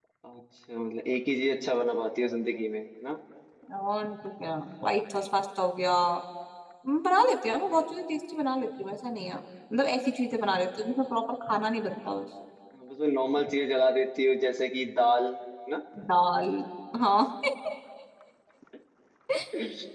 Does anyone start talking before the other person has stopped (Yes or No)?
No